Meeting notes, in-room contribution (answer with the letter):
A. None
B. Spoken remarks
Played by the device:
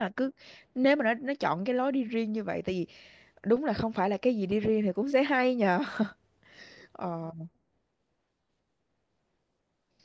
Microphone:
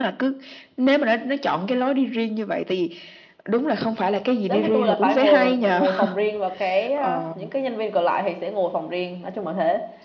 B